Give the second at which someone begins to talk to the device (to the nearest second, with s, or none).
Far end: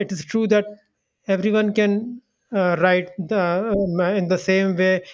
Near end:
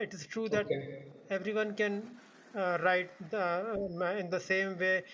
0 s